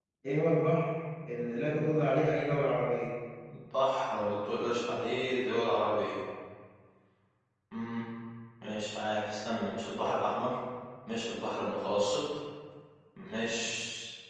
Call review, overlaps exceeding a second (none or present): none